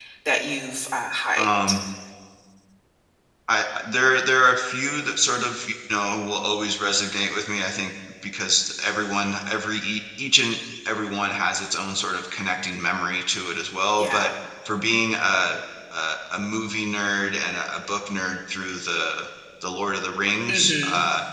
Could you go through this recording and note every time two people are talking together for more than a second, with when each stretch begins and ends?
none

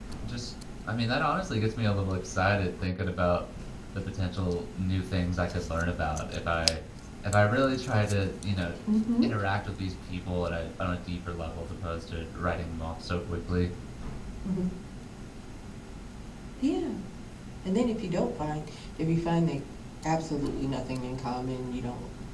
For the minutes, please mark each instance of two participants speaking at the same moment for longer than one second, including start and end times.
none

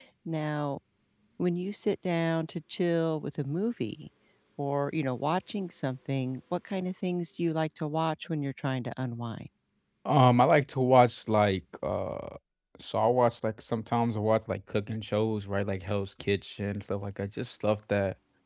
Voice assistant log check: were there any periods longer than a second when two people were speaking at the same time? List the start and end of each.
none

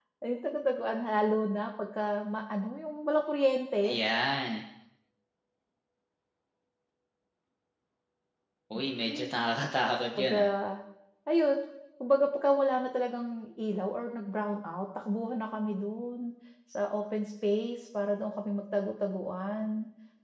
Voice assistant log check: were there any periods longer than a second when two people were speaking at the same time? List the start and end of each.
none

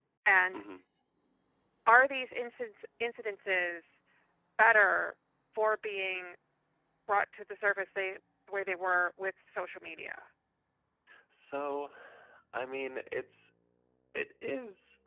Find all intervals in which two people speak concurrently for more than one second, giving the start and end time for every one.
none

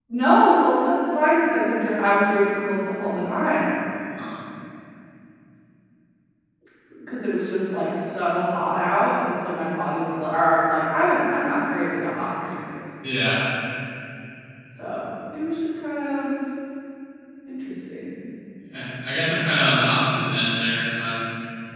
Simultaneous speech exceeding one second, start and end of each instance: none

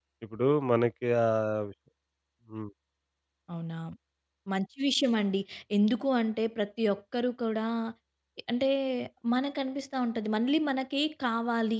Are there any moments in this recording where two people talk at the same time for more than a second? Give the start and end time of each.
none

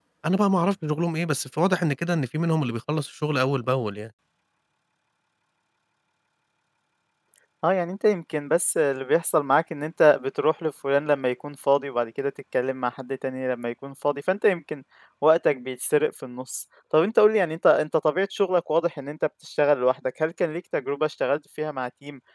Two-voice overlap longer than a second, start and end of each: none

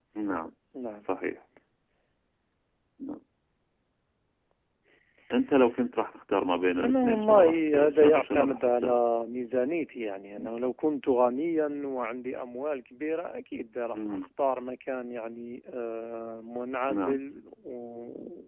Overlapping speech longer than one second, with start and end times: 6.8-9.0

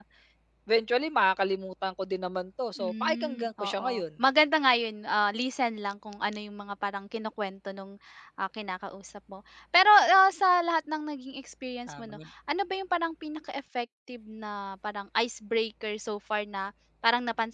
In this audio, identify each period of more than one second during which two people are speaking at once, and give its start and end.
2.8-4.0

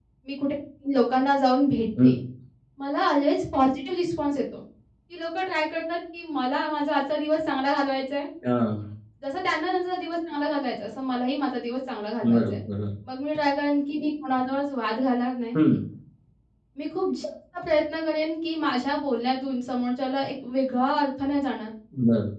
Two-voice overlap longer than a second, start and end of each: none

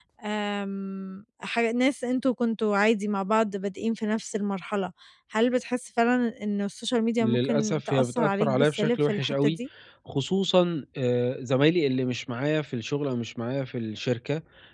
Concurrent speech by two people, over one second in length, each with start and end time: 7.2-9.6

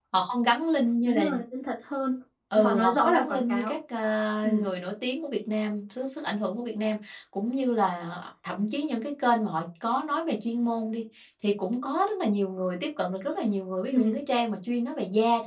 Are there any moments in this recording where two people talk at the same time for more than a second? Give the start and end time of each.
2.6-3.8

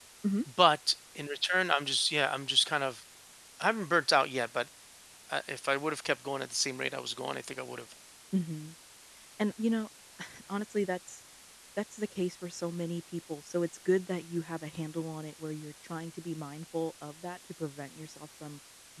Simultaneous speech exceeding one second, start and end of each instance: none

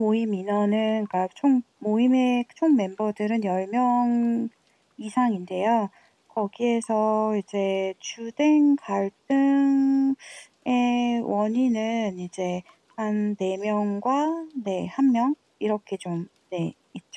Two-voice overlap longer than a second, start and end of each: none

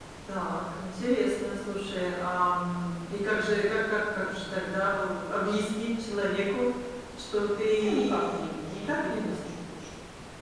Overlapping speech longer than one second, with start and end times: 7.8-9.5

